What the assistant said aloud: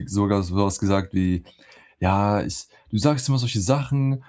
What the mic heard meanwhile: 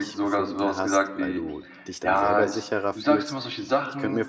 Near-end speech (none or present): present